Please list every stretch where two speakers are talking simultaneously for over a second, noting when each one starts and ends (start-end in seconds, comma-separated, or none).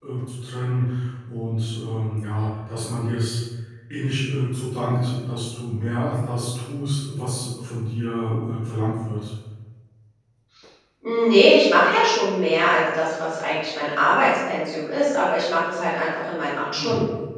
none